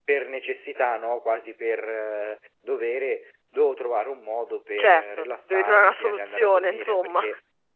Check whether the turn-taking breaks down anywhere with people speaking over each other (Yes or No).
Yes